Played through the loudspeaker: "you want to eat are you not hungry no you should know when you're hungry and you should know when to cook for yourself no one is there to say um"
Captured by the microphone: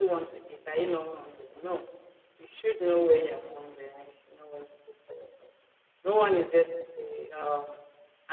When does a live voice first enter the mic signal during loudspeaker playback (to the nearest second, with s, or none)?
none